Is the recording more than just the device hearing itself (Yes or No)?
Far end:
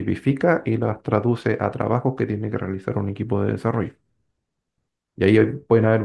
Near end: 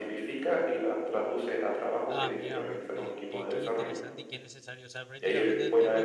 Yes